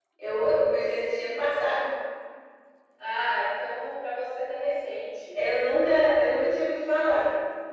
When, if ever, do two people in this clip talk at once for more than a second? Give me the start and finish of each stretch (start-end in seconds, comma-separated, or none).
none